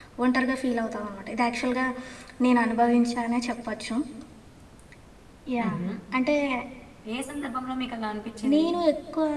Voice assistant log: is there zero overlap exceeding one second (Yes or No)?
Yes